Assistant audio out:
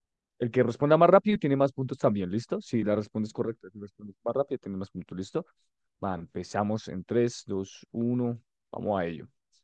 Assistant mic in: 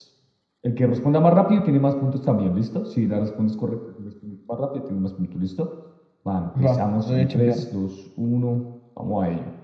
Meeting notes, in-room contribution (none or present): present